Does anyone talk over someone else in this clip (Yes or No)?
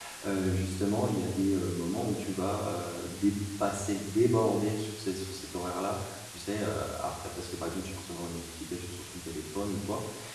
No